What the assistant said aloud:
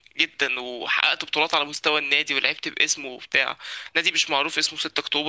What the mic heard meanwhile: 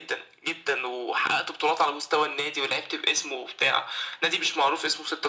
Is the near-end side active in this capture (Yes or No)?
No